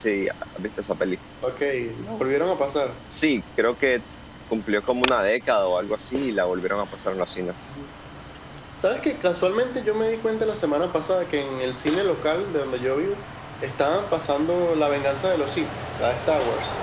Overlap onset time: none

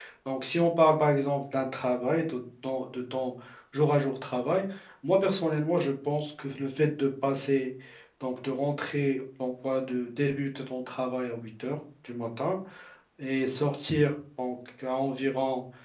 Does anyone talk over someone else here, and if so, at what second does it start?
none

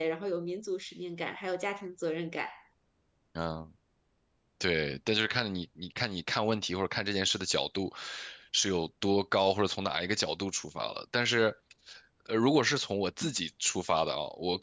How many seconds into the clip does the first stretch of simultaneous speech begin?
none

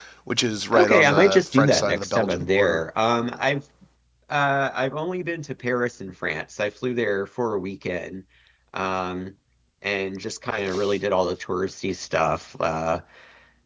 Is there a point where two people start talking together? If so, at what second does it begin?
0.7 s

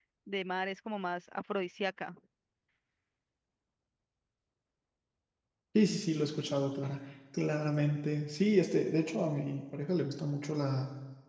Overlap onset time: none

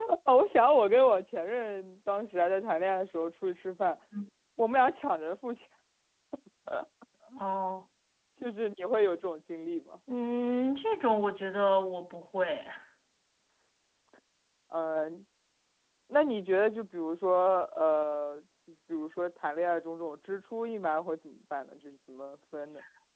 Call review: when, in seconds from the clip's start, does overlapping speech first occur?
none

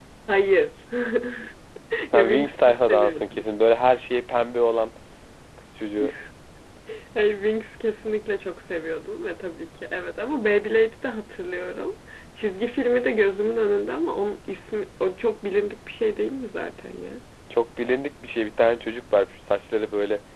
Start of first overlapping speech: 2.1 s

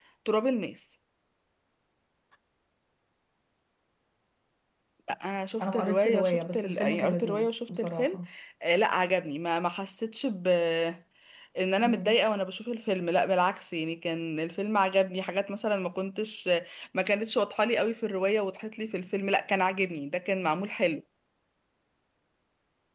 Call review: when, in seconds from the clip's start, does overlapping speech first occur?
5.6 s

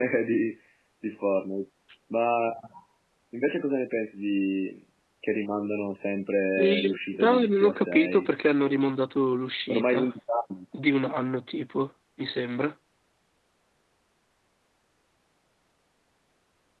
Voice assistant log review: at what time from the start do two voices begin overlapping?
6.6 s

